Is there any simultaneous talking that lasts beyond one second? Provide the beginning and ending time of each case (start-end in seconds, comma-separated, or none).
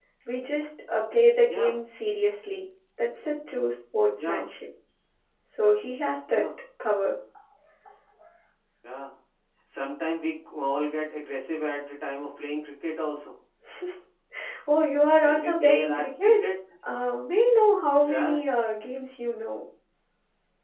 15.2-16.4